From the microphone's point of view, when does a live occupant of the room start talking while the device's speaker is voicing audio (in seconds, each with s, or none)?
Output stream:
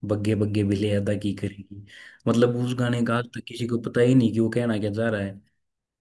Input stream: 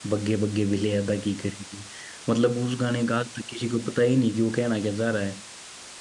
none